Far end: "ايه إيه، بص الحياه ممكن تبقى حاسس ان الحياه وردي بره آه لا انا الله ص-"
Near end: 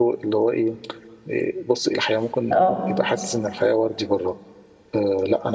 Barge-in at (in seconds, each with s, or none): 2.5 s